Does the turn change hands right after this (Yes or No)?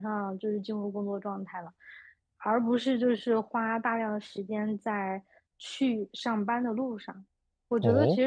No